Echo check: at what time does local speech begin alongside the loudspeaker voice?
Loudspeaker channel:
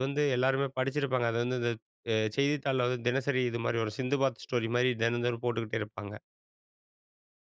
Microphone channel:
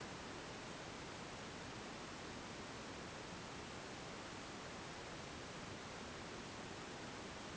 none

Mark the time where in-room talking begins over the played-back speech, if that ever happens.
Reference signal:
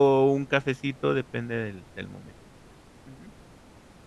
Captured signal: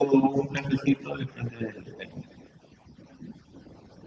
none

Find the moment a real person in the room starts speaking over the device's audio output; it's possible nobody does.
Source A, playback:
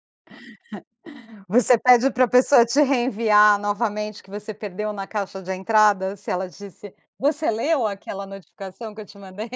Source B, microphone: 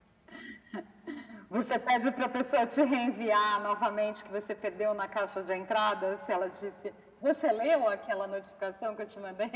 none

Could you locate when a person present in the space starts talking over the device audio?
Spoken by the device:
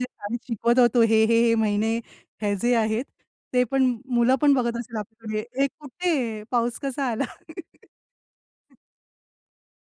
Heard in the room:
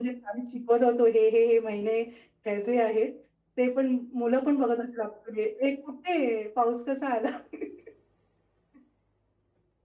none

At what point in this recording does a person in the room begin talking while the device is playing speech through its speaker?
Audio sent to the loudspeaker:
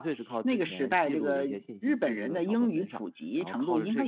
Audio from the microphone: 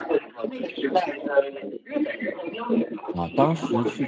3.1 s

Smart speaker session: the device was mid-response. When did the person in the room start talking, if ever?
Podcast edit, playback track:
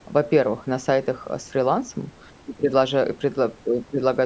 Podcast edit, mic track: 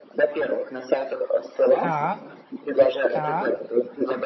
1.8 s

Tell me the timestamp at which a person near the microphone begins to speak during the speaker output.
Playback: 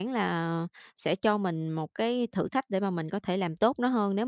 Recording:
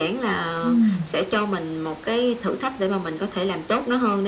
0.6 s

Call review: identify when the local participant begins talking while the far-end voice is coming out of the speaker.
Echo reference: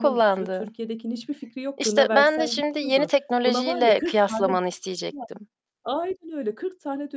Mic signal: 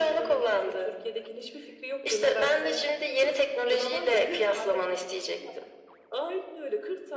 none

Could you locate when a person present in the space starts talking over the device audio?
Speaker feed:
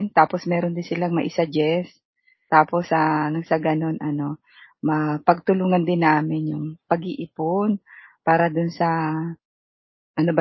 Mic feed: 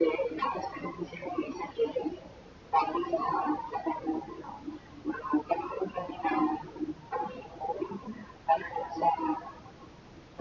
none

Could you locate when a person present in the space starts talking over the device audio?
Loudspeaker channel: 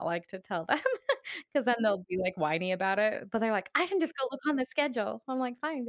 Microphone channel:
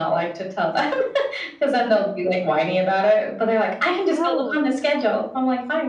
4.1 s

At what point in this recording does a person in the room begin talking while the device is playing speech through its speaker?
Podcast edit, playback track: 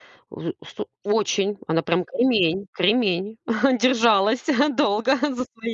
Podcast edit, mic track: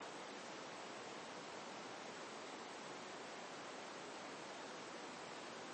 none

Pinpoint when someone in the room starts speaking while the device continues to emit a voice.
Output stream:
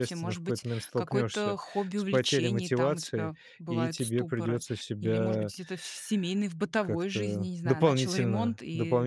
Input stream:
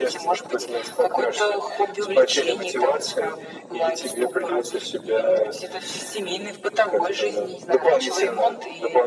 none

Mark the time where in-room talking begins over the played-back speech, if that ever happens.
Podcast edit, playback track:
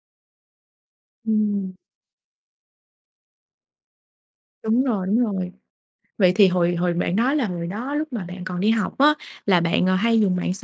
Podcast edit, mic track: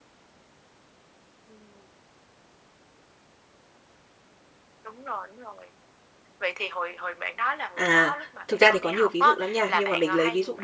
7.7 s

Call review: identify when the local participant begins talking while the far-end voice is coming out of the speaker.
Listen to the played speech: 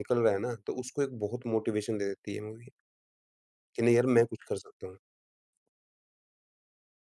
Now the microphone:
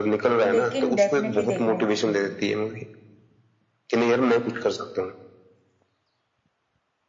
0.4 s

